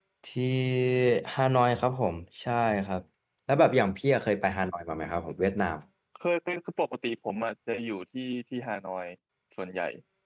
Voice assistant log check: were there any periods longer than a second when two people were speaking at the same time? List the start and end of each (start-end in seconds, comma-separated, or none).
none